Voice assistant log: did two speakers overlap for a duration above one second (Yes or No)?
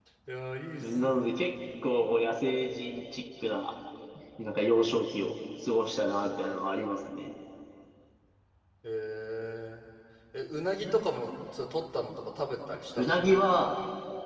No